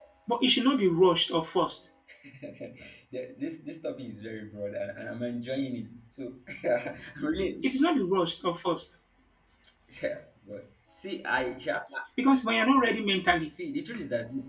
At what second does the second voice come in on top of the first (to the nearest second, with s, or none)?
none